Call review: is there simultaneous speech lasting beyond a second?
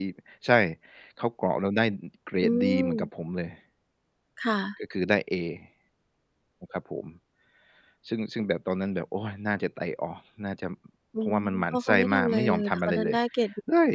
Yes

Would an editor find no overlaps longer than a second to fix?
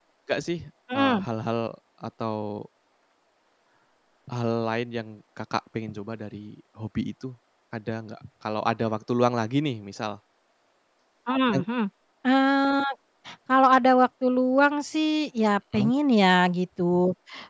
Yes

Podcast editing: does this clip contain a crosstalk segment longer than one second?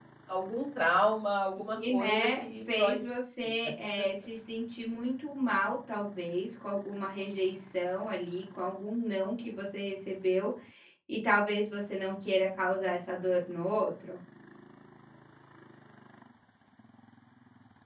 Yes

